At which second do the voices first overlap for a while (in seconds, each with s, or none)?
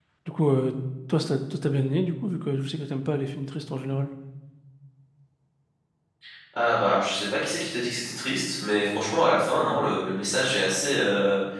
none